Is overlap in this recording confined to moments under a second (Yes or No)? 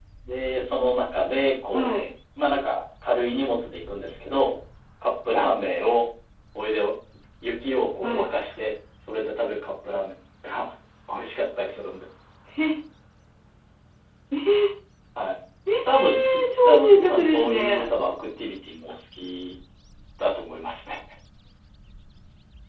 No